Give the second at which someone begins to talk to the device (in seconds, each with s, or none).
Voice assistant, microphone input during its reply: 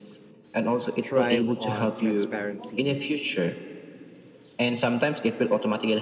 1.0 s